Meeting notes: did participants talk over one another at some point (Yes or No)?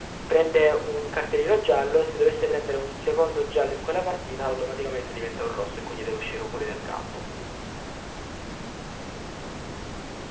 No